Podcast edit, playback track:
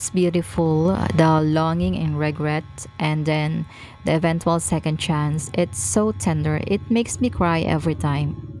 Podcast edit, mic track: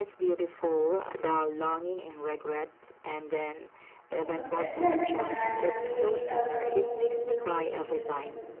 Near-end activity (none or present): present